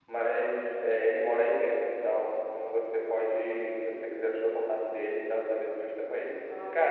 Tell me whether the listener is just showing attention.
Yes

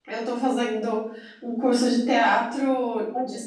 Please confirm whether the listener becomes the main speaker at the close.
No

